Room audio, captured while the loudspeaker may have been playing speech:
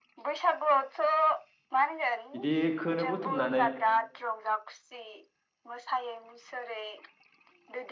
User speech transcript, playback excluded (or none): इदिखोनो बुथुमनानै